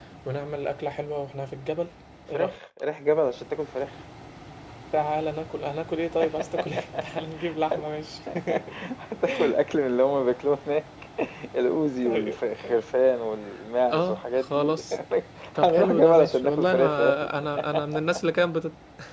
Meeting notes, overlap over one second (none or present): present